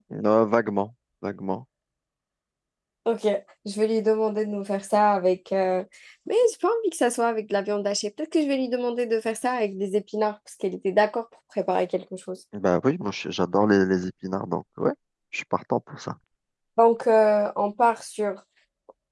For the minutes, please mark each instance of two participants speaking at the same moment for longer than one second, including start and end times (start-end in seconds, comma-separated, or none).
none